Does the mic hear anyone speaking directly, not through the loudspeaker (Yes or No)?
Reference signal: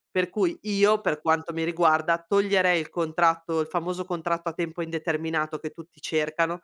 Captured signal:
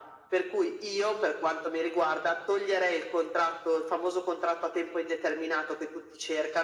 No